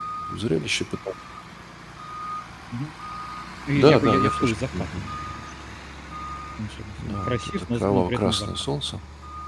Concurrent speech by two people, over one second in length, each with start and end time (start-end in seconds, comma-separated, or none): 3.7-5.0, 7.1-8.5